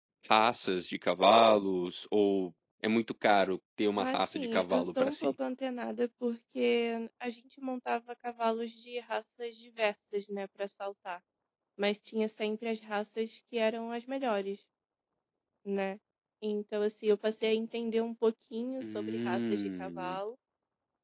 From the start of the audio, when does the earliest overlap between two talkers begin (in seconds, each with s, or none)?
4.0 s